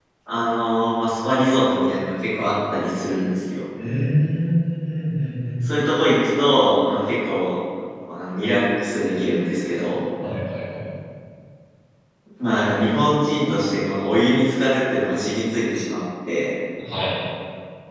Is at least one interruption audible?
No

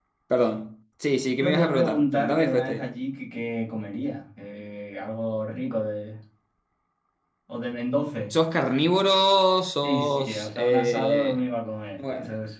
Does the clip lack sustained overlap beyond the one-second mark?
No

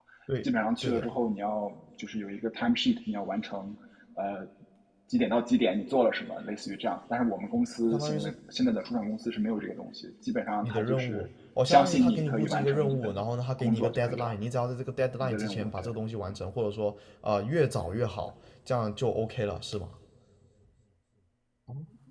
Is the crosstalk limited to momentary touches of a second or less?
No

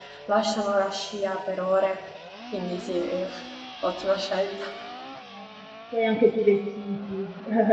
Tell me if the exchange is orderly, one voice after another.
Yes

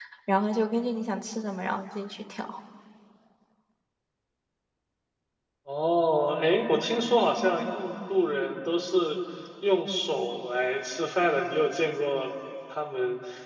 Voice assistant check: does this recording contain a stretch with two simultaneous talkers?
No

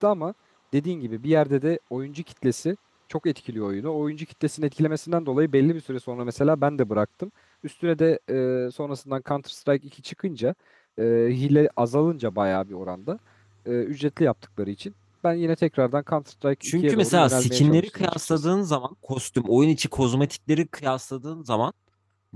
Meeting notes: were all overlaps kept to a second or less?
No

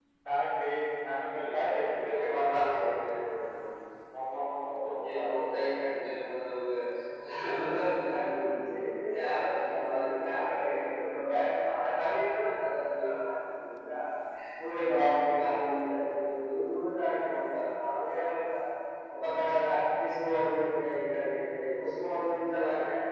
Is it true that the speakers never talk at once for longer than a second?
No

